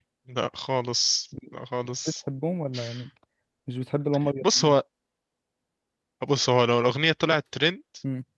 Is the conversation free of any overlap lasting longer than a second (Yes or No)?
Yes